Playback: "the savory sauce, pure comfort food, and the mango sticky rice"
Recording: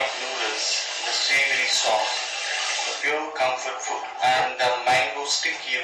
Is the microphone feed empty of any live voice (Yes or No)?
Yes